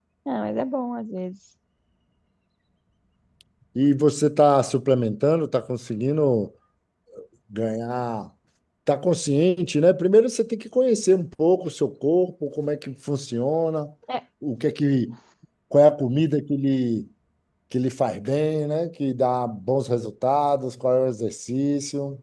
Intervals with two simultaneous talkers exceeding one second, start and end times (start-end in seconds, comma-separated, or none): none